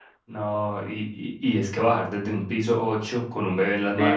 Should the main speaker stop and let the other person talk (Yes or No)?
Yes